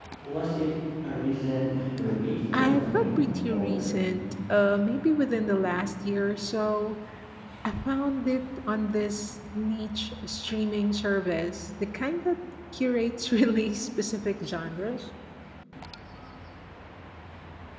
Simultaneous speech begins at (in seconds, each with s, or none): 2.5 s